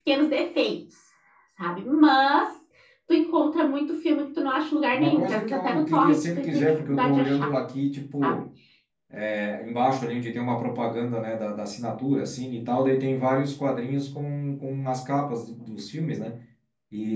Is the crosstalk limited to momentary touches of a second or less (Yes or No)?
No